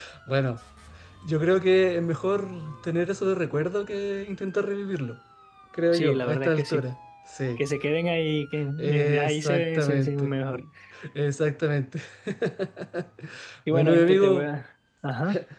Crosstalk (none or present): present